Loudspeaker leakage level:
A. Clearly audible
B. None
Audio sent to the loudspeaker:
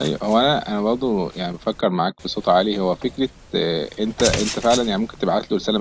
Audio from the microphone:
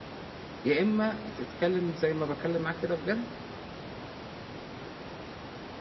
B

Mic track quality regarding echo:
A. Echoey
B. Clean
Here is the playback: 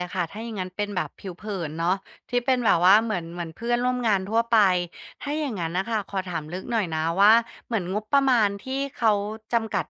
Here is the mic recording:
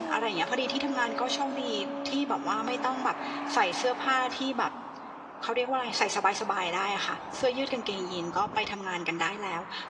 B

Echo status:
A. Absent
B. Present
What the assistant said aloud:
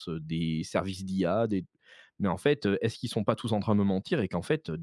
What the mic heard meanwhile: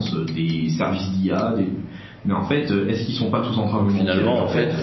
B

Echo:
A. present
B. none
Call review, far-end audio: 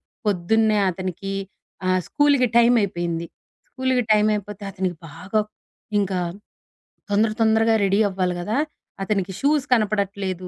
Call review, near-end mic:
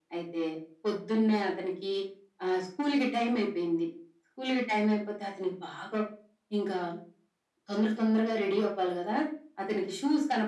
A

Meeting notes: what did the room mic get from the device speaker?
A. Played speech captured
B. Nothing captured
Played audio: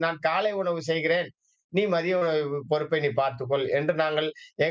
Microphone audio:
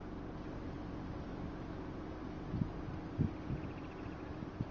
B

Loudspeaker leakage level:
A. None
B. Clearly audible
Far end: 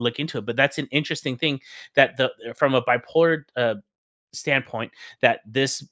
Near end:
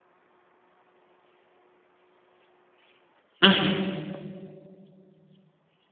A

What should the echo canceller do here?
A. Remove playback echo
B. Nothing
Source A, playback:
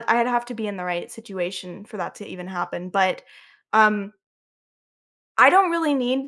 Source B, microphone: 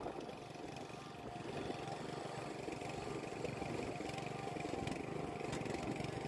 B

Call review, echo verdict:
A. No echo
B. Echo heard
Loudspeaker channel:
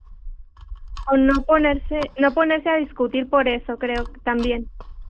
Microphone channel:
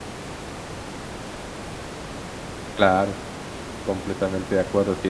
A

